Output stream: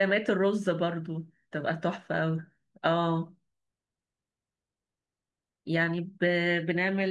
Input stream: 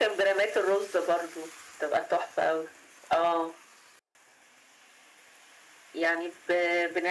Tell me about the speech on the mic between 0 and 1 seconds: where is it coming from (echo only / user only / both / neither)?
echo only